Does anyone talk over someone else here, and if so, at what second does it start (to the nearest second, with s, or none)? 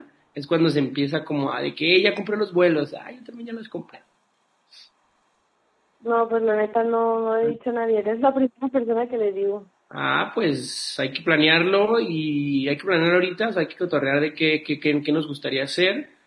none